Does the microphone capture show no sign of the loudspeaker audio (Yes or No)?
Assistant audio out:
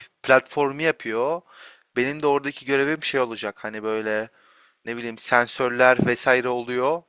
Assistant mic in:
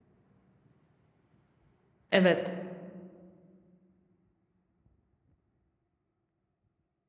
Yes